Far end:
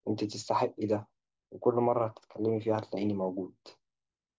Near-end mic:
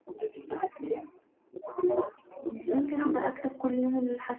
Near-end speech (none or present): present